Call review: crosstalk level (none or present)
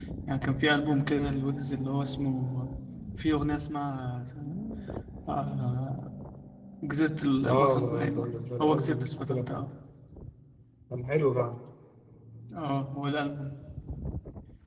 present